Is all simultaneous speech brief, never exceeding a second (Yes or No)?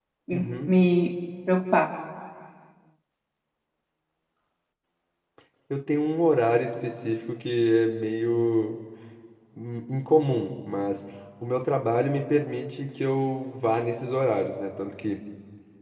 Yes